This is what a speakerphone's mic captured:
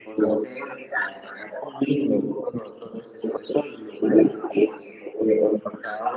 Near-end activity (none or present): none